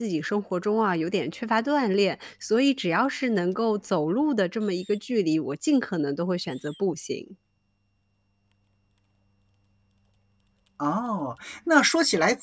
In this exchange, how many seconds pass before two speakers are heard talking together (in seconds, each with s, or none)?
none